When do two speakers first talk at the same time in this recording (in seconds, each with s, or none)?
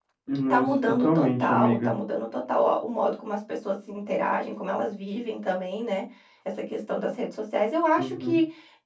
0.5 s